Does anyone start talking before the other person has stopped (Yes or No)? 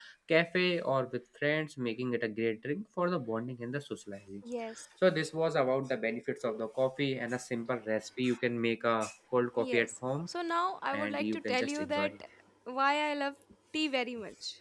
Yes